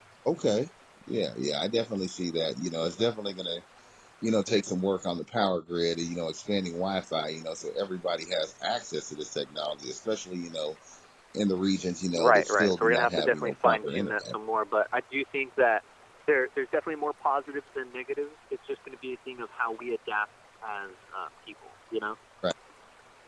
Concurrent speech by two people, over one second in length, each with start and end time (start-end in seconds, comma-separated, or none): 12.2-14.4